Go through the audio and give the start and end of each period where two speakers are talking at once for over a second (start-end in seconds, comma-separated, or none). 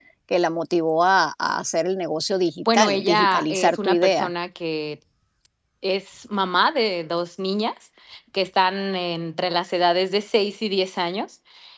2.7-4.3